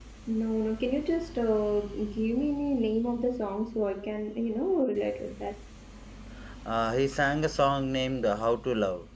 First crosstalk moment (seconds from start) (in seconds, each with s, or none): none